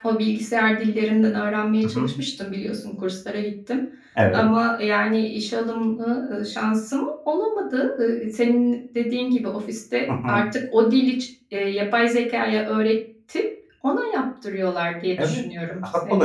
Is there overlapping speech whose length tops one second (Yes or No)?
No